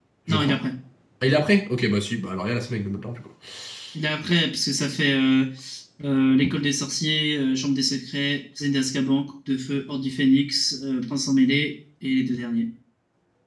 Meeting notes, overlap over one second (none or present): none